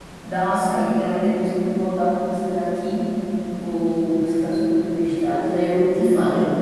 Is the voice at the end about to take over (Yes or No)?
Yes